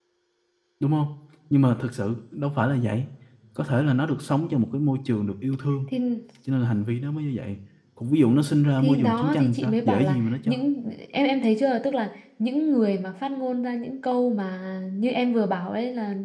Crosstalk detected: Yes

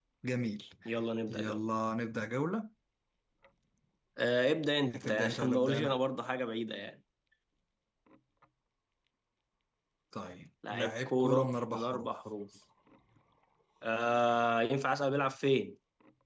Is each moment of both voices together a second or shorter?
No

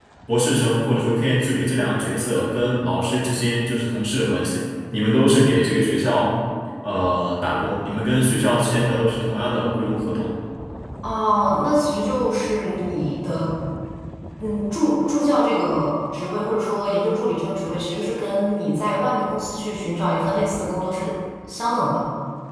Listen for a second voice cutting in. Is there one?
No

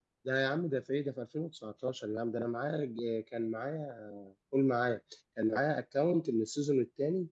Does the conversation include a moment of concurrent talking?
No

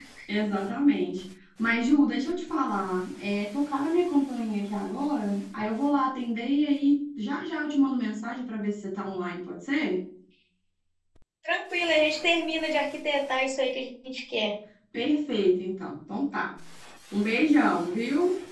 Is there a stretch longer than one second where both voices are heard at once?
No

